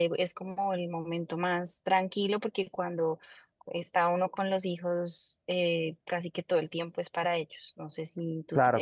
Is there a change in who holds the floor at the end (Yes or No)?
No